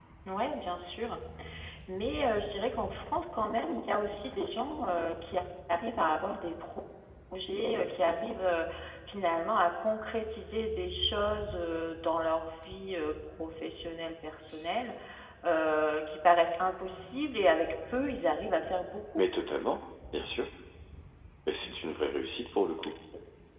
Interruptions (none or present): none